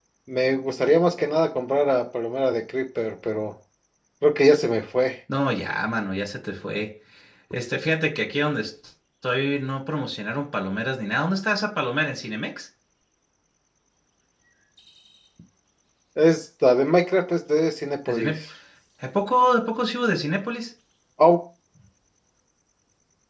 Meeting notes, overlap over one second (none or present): none